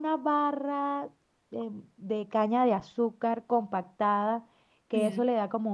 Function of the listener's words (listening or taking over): listening